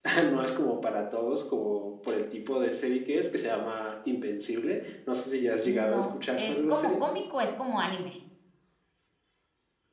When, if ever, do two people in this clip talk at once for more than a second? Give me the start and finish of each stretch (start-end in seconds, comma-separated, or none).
5.7-6.9